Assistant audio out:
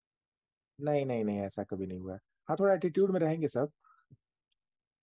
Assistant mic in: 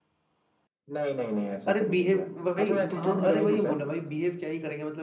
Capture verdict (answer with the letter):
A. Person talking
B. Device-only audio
A